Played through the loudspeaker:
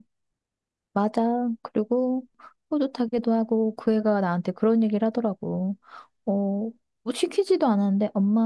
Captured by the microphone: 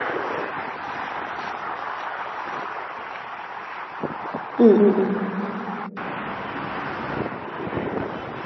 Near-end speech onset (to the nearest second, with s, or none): 5 s